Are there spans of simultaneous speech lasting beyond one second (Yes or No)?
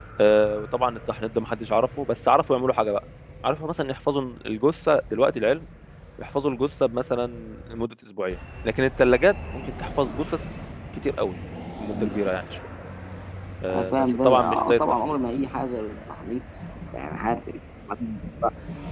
Yes